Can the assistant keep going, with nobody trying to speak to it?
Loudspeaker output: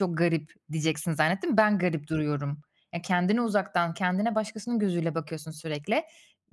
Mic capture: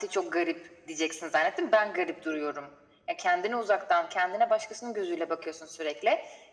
Yes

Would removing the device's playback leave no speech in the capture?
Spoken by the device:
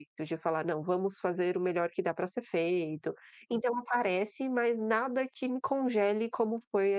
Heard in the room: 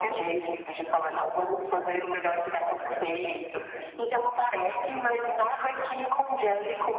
Yes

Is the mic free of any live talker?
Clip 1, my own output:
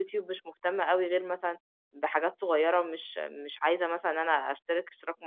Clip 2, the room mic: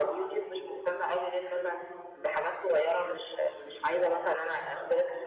Yes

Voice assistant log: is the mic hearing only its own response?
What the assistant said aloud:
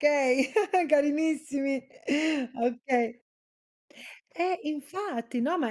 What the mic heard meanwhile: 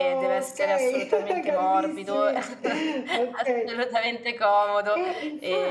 No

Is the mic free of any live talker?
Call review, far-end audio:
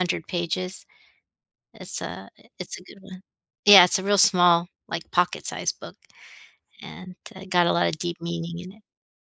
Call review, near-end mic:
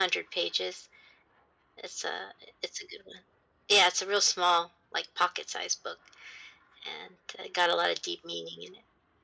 Yes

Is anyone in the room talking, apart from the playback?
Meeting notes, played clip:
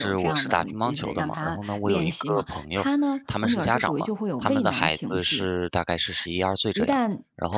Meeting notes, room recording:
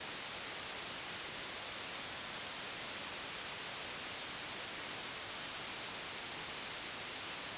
No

